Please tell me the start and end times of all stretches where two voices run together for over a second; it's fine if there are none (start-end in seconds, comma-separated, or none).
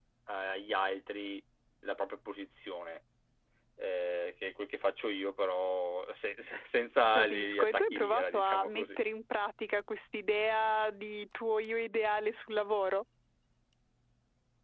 7.2-9.0